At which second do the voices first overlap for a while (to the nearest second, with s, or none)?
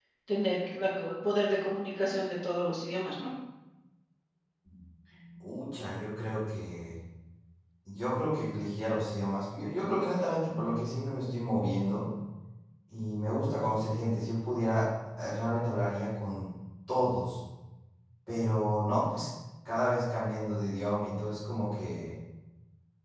none